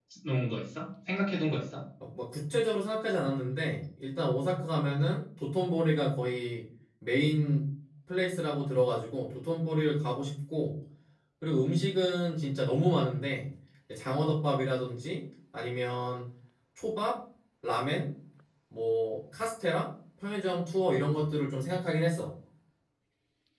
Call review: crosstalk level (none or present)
none